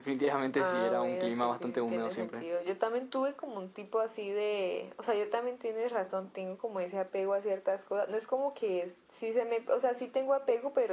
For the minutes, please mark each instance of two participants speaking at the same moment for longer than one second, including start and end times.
0.6-2.4

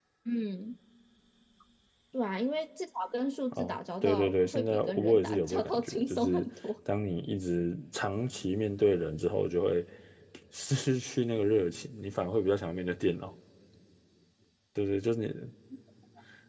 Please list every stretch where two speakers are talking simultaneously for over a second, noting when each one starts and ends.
3.5-6.5

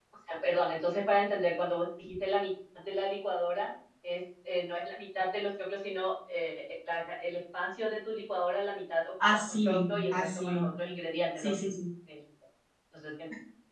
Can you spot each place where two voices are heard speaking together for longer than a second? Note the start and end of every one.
9.3-10.7

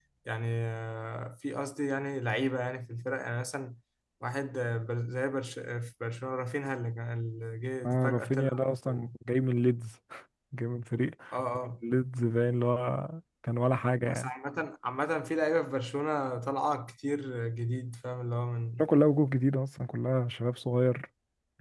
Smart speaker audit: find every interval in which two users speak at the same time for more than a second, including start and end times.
7.8-9.1

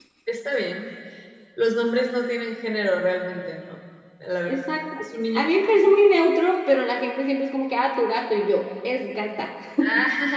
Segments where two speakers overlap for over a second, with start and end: none

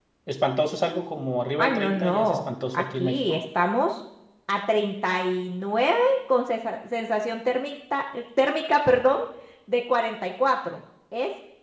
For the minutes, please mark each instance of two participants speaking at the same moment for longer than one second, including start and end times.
1.6-3.2

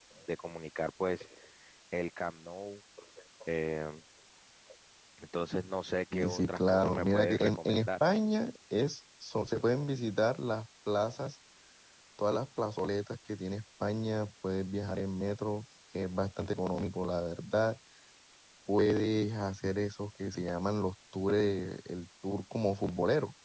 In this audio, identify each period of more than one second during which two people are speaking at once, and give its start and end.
6.1-7.9

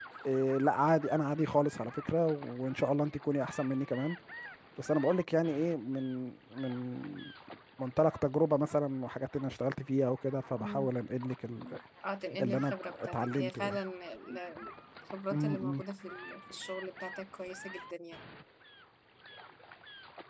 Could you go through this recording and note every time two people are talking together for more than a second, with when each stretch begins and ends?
12.4-13.8

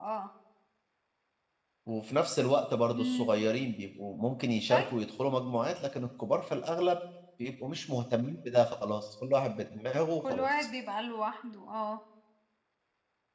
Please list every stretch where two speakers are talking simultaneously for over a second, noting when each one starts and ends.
none

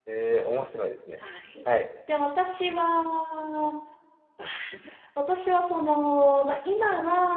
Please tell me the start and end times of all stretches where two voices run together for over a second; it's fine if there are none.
none

